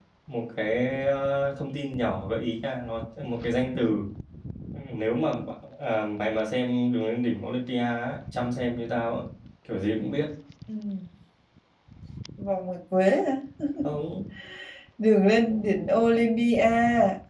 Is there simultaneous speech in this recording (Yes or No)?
No